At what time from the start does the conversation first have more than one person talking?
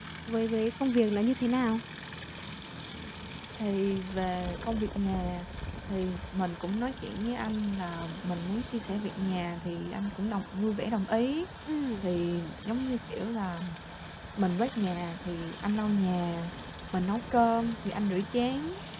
none

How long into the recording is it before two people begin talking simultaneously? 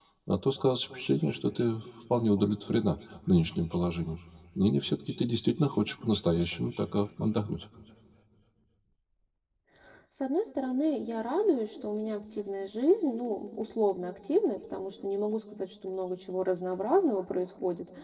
none

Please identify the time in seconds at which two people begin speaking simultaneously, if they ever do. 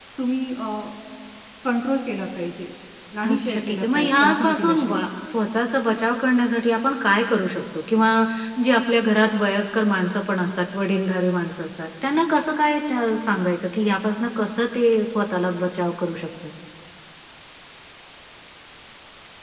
3 s

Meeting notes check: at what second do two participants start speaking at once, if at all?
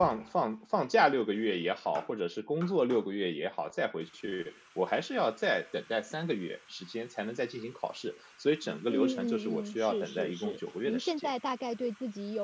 9 s

